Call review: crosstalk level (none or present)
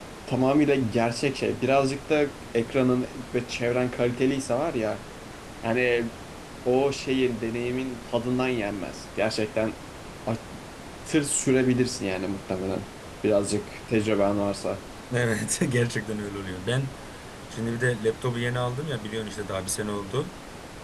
none